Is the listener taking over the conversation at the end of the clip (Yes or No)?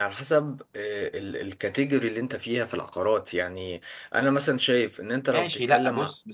Yes